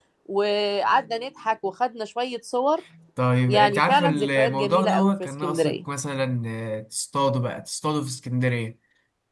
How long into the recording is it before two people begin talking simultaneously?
3.5 s

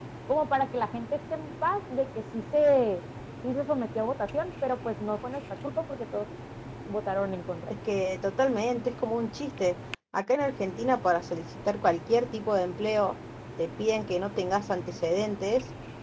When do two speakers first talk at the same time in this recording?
none

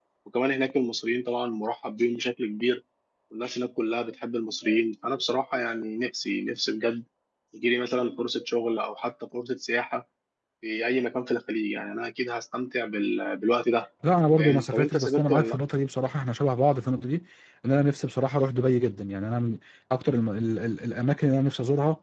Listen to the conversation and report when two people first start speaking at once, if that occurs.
14.4 s

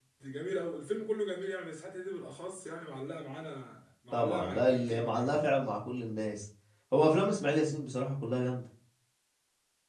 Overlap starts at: 4.1 s

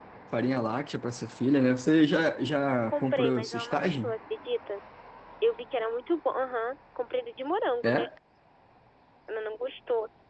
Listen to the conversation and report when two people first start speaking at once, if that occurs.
2.9 s

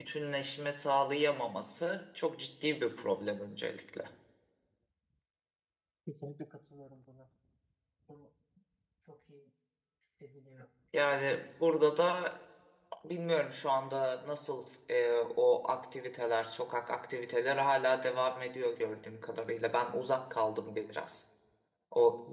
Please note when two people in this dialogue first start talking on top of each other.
none

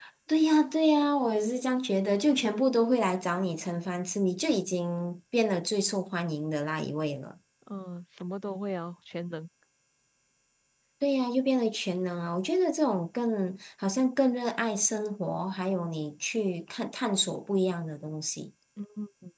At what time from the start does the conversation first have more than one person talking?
none

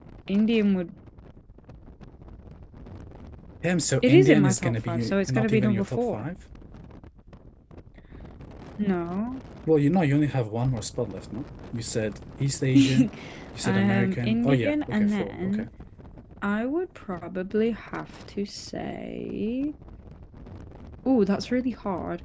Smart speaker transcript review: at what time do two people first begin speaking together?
4.0 s

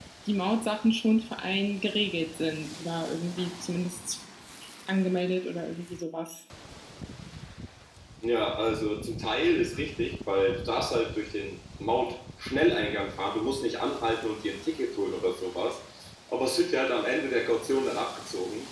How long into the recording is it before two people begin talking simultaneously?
none

